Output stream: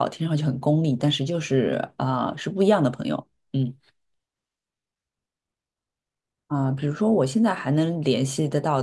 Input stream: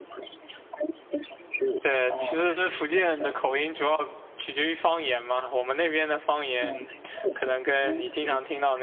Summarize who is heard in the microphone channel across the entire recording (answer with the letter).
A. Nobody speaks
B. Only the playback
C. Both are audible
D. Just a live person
C